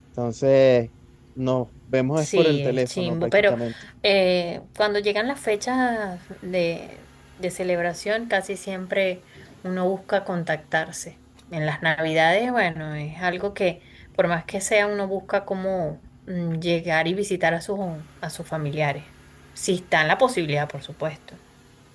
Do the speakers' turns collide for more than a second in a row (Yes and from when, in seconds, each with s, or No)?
Yes, from 2.2 s